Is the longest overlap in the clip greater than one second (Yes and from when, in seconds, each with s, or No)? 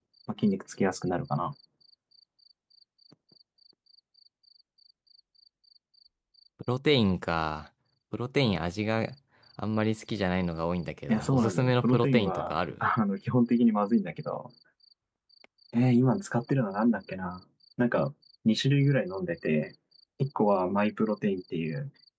Yes, from 11.1 s